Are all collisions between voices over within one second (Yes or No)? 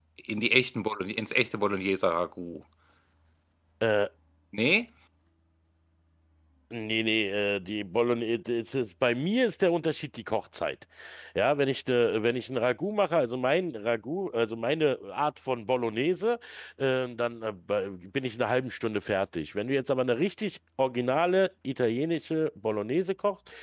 Yes